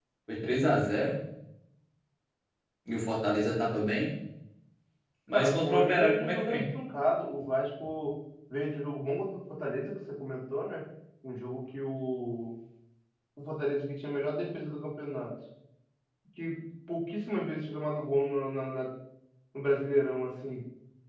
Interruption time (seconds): 5 s

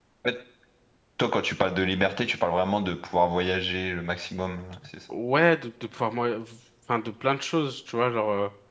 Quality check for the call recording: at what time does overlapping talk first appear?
none

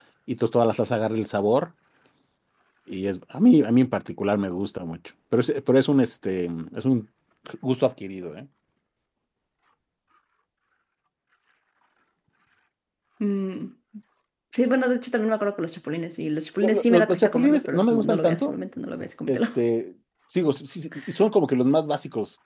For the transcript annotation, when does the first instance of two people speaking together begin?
17 s

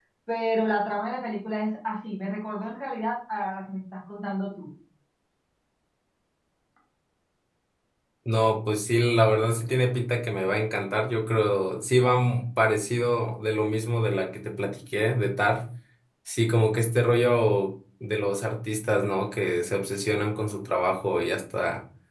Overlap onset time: none

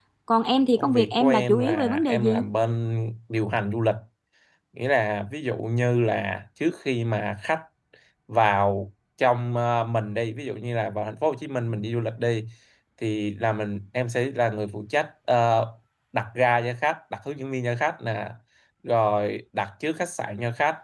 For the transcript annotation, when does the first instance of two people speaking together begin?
1 s

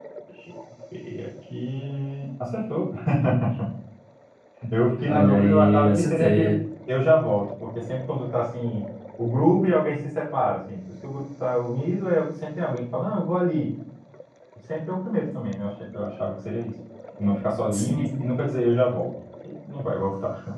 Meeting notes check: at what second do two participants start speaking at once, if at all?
5 s

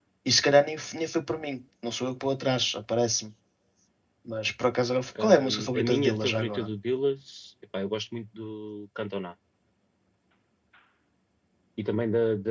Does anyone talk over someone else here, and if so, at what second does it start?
5 s

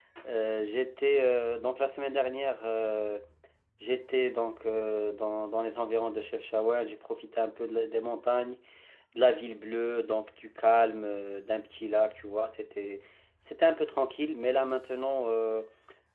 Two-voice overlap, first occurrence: none

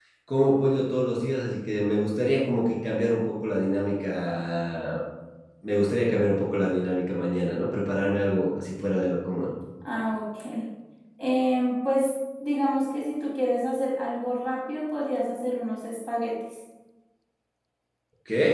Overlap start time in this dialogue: none

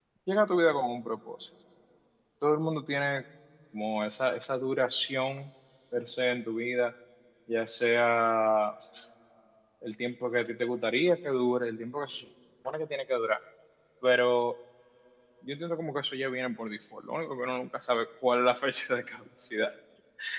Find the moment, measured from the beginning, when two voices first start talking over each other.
none

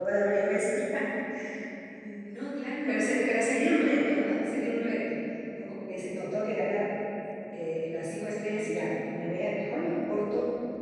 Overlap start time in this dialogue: 3 s

